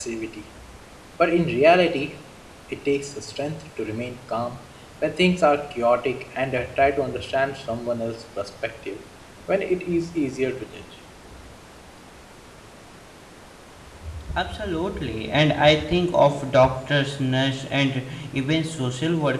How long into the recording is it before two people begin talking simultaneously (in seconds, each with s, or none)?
none